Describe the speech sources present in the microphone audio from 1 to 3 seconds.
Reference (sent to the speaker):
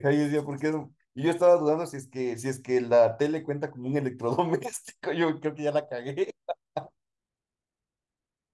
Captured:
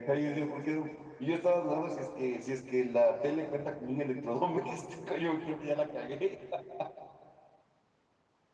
echo only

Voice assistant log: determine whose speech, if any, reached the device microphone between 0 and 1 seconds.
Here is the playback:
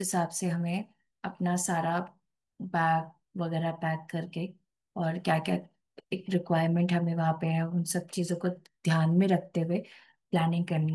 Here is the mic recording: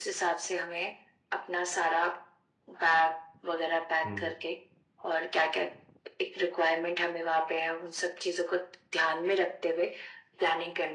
echo only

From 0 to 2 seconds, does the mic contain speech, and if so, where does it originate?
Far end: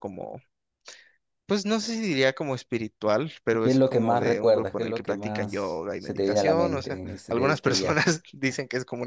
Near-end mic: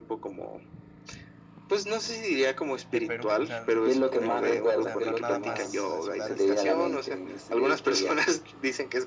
echo only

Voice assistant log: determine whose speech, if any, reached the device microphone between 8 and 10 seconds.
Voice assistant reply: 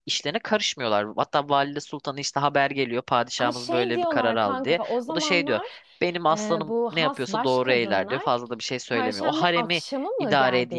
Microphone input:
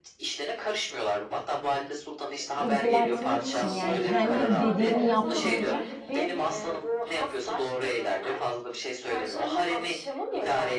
echo only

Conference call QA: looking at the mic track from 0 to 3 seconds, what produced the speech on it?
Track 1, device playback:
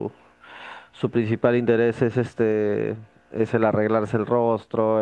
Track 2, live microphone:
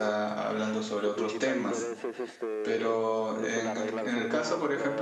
both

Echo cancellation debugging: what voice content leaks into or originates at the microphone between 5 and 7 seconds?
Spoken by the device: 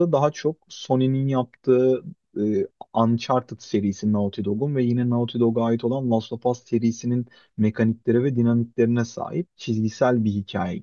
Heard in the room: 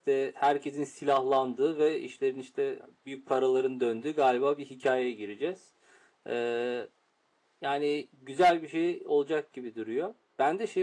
user only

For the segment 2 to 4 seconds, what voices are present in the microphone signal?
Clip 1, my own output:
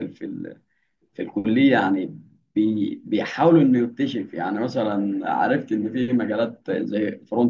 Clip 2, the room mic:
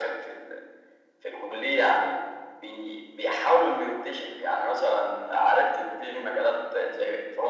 echo only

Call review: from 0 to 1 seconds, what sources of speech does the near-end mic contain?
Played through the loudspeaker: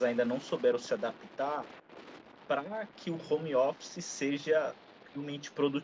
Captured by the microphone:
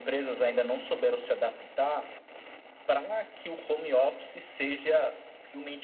echo only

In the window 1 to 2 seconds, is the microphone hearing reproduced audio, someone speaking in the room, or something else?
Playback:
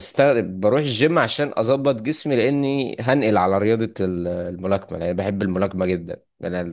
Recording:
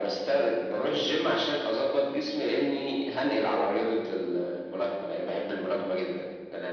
echo only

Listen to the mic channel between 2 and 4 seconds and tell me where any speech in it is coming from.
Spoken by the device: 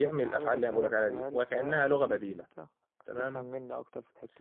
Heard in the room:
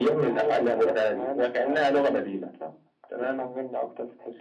echo only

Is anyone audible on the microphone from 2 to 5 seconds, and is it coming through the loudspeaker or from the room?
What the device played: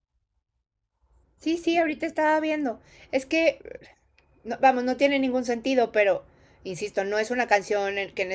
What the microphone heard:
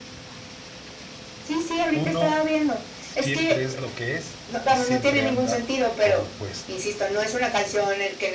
both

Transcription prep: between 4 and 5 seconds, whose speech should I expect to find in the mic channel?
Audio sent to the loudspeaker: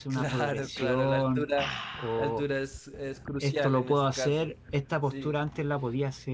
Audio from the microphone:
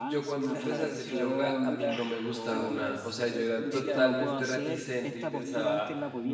both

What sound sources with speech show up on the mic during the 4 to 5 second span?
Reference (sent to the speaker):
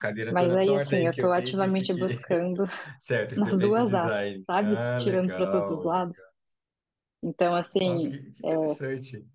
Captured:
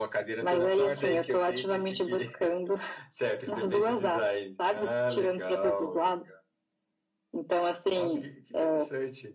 echo only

